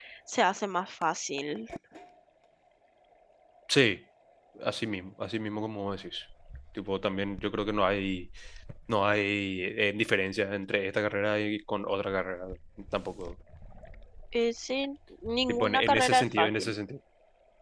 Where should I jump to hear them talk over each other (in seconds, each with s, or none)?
15.5 s